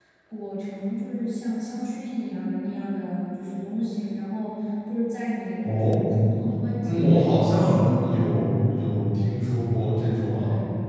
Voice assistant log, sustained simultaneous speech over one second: present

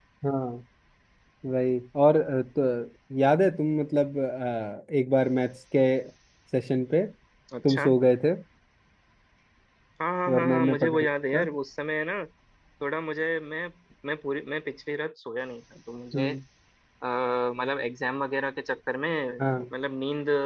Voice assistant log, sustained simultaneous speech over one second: present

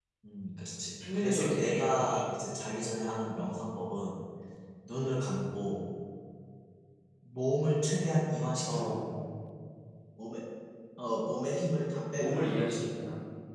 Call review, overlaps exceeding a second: present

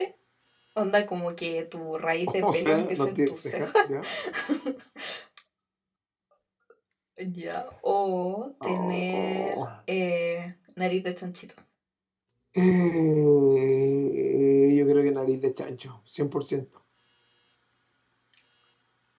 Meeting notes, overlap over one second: present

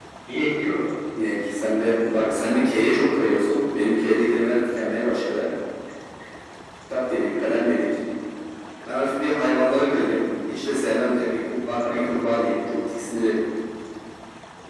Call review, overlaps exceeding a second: none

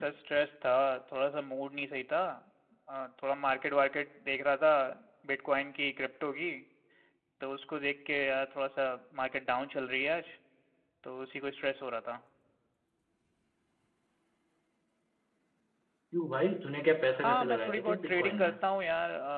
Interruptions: present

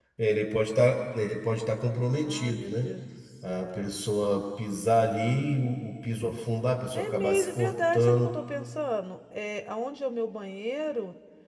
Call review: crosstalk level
present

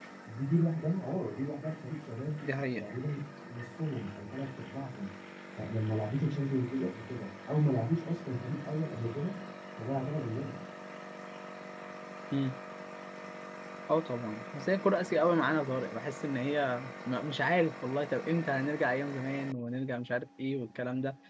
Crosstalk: none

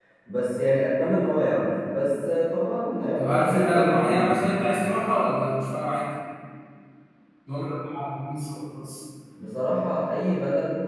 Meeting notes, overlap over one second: present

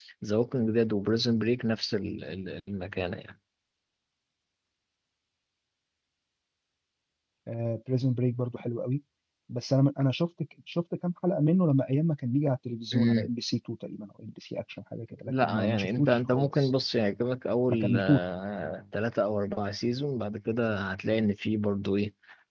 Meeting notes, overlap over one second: present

